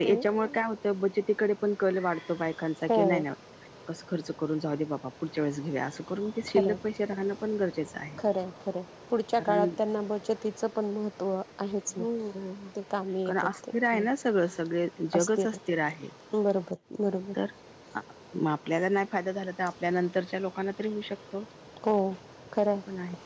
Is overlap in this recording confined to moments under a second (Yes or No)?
Yes